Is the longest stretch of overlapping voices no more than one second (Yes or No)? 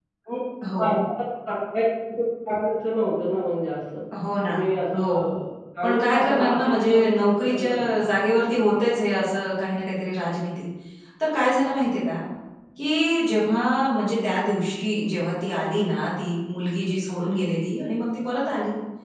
No